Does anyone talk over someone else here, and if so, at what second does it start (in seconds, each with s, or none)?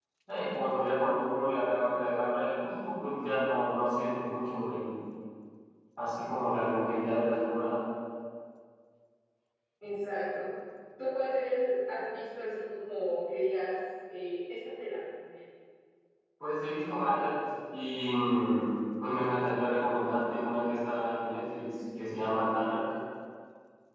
none